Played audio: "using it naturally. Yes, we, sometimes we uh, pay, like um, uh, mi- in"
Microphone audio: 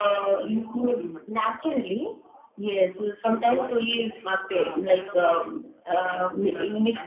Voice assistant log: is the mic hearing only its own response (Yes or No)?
No